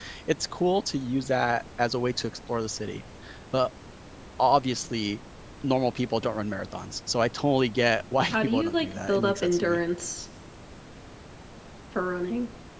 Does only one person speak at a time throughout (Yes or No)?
No